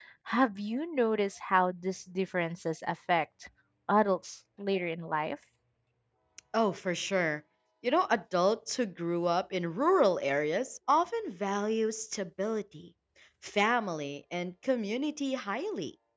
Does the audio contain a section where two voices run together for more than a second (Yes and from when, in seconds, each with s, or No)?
No